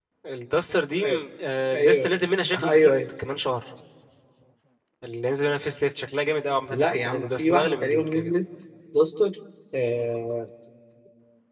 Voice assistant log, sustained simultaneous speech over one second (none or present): present